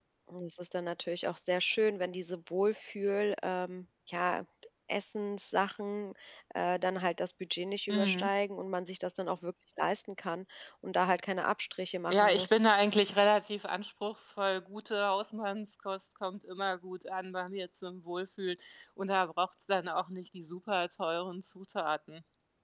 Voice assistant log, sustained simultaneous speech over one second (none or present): none